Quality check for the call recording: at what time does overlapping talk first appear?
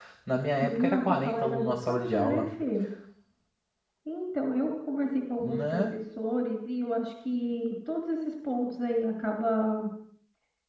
0.6 s

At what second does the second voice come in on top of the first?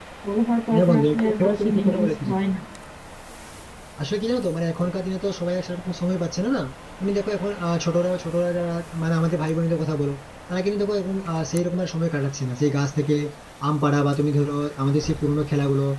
0.7 s

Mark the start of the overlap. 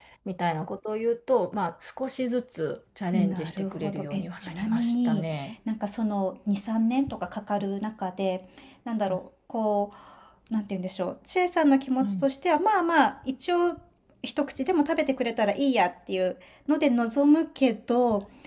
3.1 s

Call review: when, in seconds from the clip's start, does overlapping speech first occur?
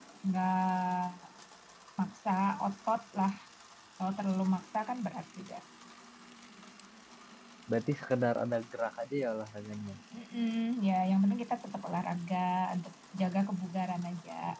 none

